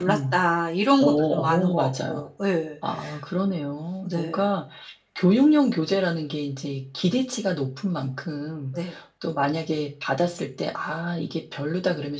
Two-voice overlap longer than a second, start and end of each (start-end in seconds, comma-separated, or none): 1.0-2.2